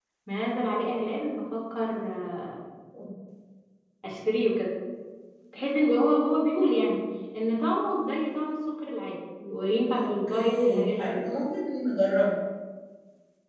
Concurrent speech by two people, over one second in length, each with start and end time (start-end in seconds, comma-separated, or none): 9.9-11.2